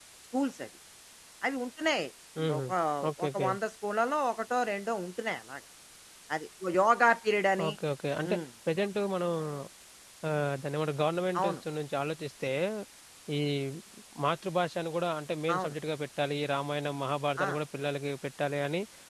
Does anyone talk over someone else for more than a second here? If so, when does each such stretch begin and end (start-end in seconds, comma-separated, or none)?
none